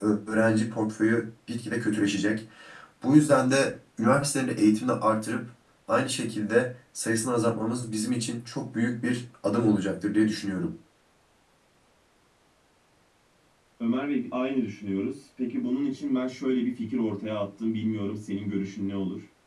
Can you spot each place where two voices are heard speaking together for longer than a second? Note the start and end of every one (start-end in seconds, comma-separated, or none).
none